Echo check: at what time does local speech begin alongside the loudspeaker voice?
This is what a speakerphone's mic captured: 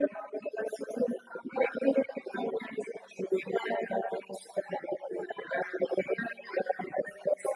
none

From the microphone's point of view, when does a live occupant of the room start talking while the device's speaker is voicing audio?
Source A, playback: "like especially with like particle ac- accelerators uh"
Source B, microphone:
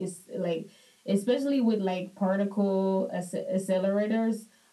none

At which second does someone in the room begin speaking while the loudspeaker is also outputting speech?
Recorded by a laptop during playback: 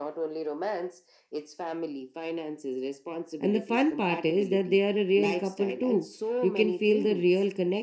3.4 s

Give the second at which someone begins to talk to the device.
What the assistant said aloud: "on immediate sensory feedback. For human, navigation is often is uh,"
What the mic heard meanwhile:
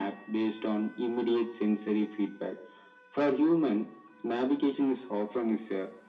none

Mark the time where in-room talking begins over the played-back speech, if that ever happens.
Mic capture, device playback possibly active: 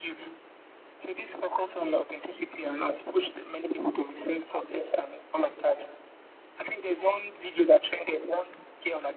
none

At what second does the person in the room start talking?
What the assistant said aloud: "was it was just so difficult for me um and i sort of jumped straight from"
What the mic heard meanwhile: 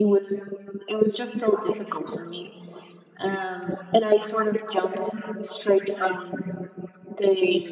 none

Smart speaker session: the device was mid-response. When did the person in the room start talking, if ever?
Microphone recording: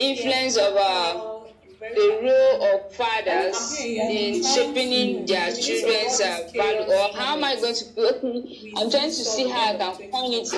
3.3 s

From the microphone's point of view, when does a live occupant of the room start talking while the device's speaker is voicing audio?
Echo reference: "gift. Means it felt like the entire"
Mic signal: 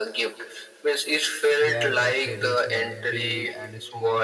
1.6 s

